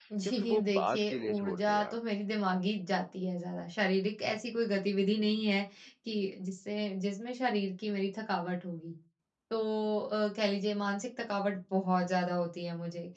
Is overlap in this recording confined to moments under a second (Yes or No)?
No